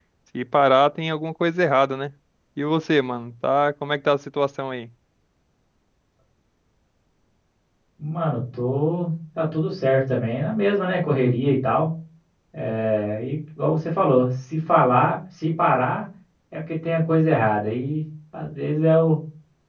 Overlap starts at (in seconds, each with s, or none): none